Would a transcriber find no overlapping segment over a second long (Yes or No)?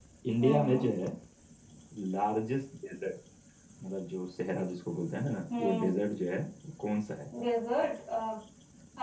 Yes